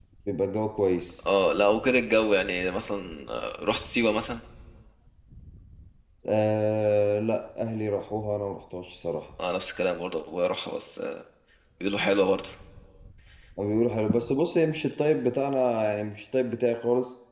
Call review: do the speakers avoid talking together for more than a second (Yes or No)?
Yes